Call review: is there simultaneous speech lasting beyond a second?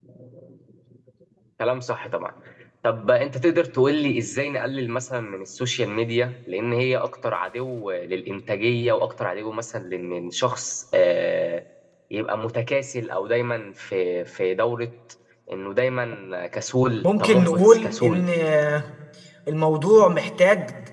Yes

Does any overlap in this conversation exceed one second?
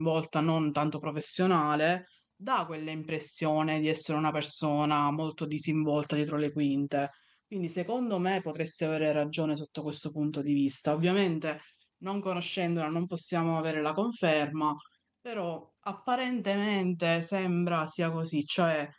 No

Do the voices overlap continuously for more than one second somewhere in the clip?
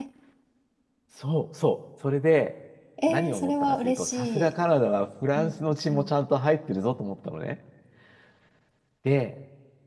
Yes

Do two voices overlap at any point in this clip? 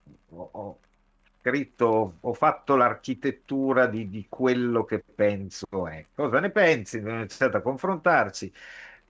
No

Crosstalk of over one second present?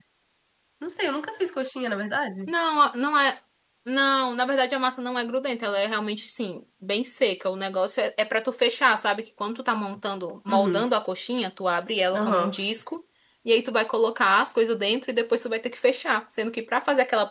No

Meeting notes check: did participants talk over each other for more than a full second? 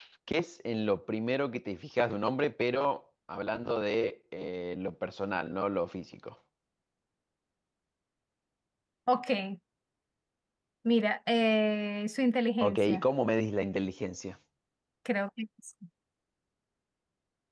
No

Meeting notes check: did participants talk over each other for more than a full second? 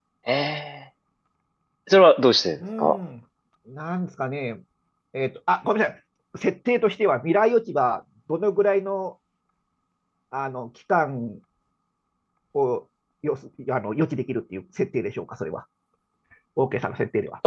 No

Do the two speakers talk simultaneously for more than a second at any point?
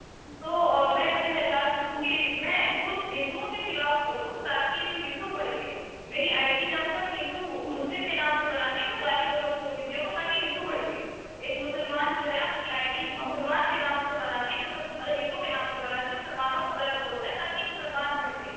No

